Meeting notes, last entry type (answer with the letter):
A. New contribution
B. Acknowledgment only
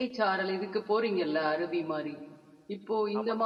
B